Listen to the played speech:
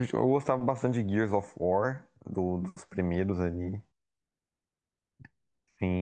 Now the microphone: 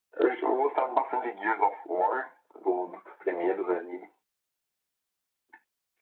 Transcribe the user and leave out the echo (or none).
none